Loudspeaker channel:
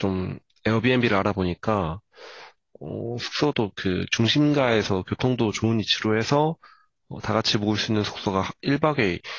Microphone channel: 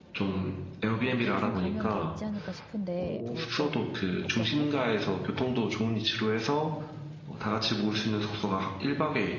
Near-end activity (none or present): present